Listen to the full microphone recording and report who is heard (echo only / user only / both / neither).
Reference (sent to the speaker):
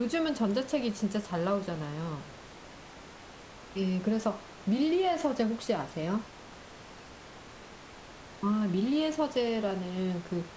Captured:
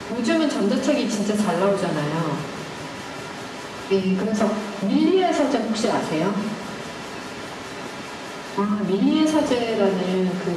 echo only